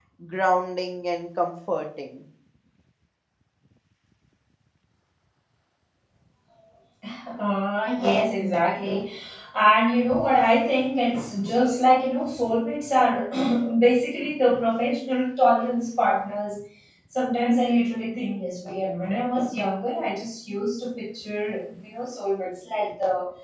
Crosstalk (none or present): none